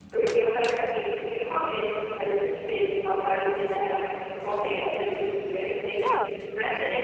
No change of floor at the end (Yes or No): Yes